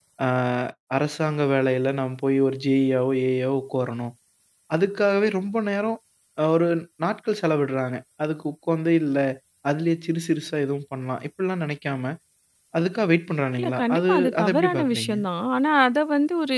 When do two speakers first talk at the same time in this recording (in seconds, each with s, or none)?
13.6 s